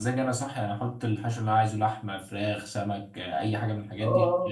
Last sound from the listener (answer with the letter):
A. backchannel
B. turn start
B